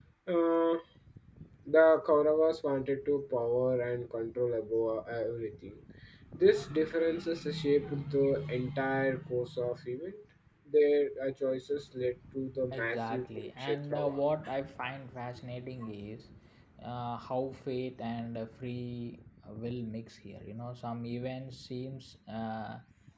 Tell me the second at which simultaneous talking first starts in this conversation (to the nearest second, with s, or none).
13 s